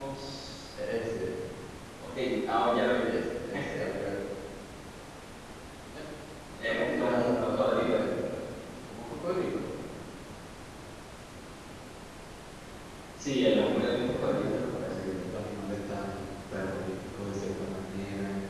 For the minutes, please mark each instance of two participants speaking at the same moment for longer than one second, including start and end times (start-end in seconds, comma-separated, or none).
6.6-8.1, 13.6-15.0